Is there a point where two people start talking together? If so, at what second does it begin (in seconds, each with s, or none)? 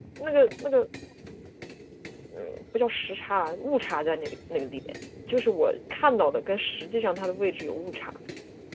none